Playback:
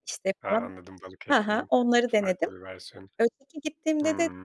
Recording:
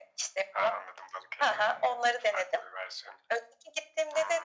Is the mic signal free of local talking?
No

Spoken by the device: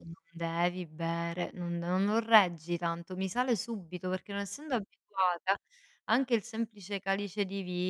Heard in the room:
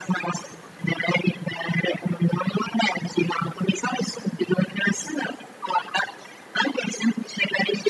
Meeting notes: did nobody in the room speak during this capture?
Yes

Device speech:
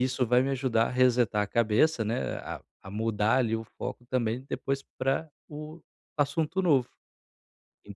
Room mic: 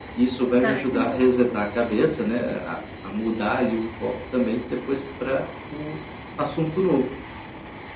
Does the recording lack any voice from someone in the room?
No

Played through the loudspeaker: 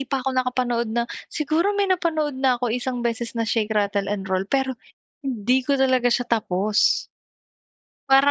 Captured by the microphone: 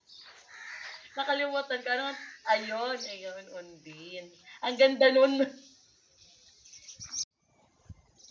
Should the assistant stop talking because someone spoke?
Yes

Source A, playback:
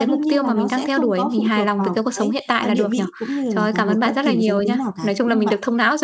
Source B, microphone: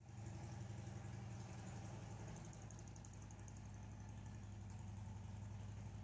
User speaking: No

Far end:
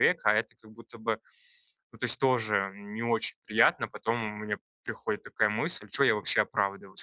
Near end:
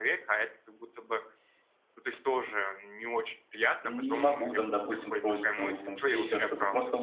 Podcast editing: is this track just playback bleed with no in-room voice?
No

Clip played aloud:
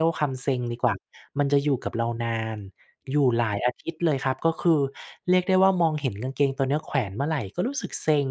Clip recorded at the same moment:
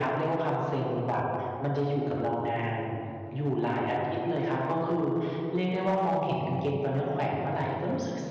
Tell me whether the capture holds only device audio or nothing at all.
Yes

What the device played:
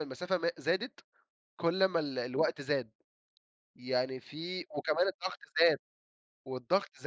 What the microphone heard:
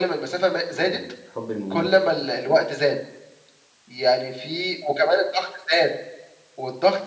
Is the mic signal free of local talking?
No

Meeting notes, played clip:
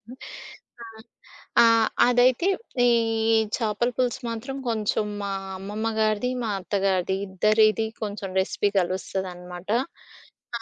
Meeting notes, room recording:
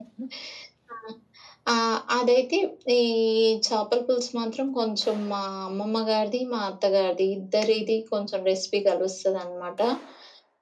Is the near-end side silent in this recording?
Yes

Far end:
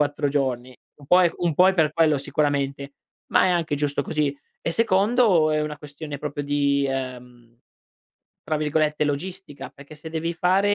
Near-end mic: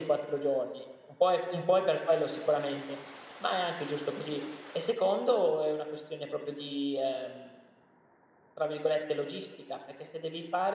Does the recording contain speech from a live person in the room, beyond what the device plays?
No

